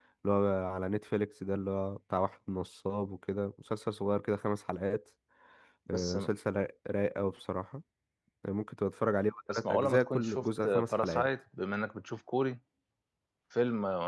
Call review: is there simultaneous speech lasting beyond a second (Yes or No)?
Yes